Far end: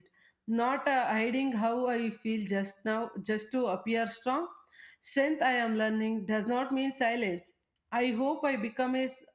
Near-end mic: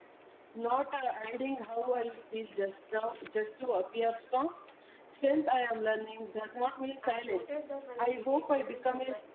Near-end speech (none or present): present